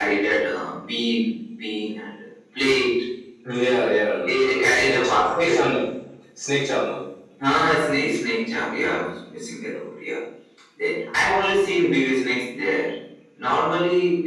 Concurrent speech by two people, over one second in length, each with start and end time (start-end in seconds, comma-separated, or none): 4.3-5.6